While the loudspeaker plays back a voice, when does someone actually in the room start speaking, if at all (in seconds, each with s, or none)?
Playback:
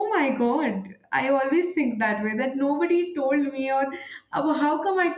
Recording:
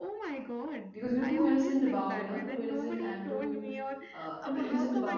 0.9 s